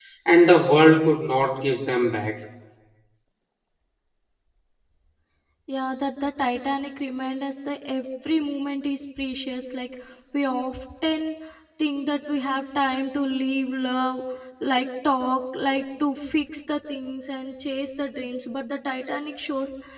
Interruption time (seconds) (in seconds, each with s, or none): none